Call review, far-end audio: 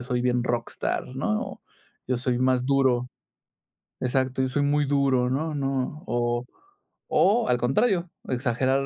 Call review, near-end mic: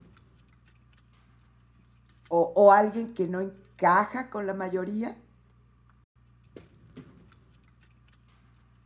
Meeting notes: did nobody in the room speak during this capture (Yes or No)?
No